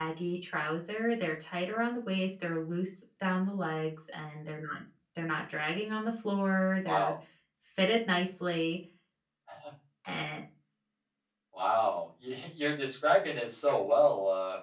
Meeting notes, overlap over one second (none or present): none